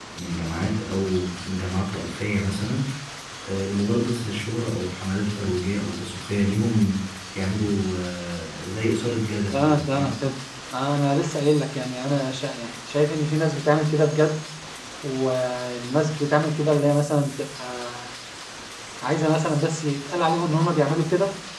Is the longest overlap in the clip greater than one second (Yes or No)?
No